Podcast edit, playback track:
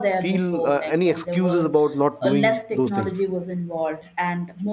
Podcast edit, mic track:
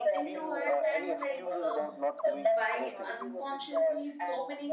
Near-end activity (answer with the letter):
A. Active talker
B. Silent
A